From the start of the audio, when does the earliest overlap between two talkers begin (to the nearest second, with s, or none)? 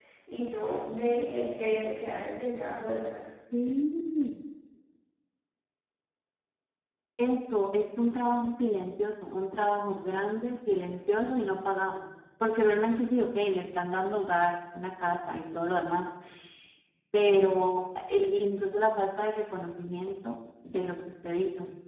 none